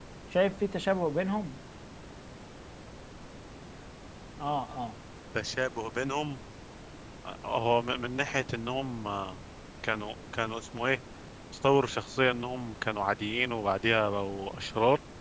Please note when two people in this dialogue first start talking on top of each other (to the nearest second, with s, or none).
none